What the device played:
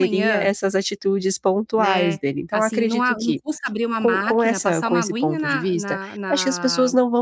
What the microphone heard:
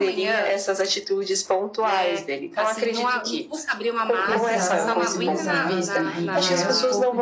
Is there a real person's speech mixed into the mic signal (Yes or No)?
Yes